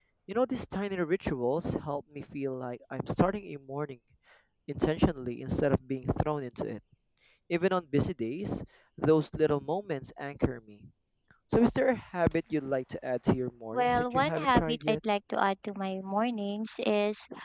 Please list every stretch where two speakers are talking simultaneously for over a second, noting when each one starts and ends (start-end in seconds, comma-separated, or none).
13.7-15.0